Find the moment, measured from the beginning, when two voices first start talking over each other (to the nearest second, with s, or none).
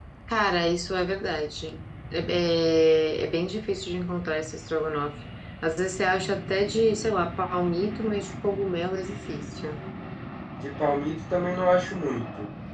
none